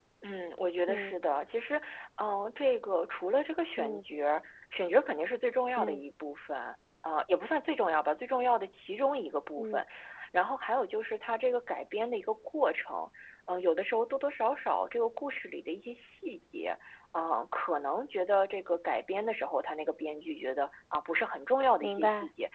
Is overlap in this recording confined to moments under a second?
Yes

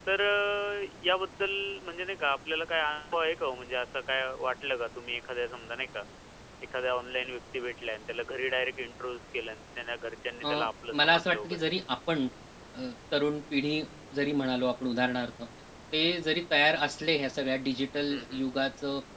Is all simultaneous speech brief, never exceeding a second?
No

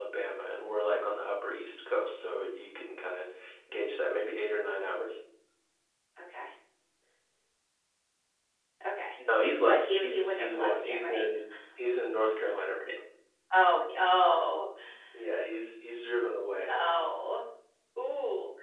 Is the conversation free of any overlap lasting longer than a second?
No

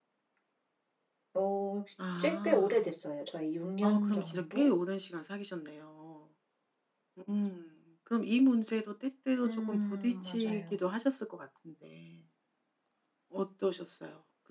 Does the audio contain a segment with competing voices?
Yes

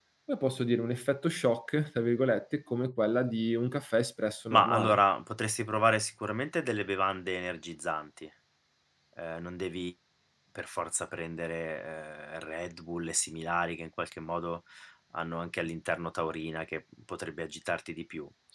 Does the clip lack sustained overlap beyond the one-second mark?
Yes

